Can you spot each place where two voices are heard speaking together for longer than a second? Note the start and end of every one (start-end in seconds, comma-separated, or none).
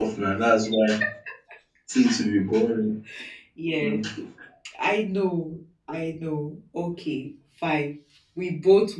none